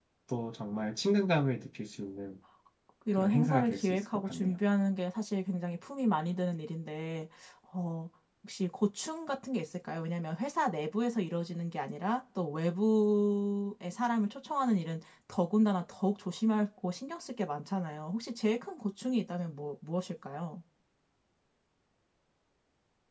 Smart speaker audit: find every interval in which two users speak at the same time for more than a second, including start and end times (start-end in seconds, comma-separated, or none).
3.2-4.5